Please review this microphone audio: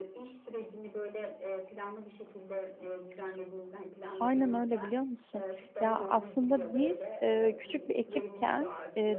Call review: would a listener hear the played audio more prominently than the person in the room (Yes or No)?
No